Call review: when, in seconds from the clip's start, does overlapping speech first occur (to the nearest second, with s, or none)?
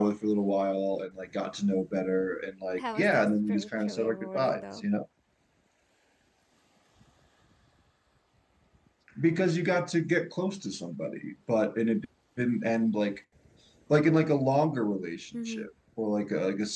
3 s